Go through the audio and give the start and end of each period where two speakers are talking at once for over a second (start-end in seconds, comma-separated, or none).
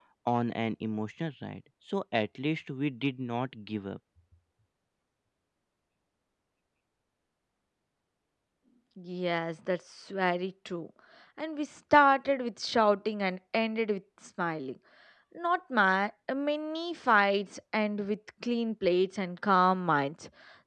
none